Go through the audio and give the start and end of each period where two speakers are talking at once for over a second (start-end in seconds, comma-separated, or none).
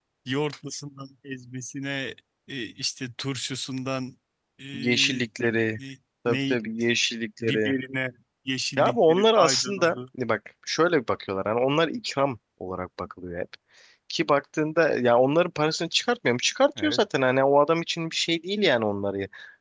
8.8-10.0